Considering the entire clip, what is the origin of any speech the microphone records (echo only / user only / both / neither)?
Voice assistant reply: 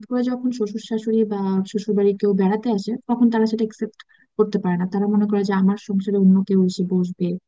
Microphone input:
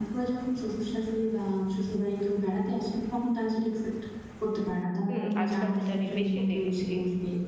both